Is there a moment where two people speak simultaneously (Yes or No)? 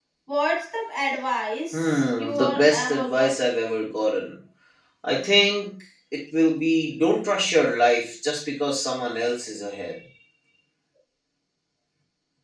Yes